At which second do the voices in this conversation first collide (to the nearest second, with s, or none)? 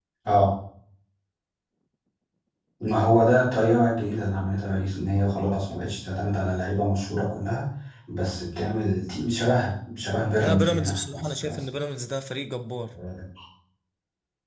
10 s